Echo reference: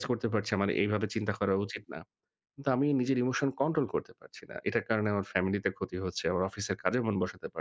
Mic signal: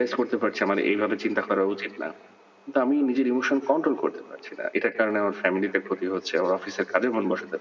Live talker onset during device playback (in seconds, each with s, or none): none